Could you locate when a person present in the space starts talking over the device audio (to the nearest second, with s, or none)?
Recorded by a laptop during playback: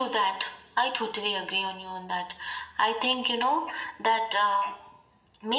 none